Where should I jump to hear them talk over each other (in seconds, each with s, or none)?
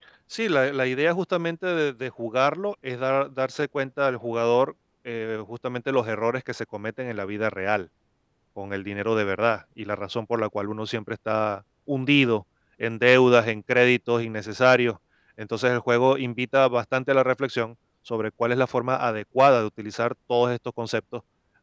none